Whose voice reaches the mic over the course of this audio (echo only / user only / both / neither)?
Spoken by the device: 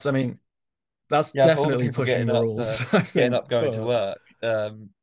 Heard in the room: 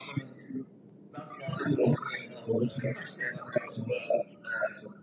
echo only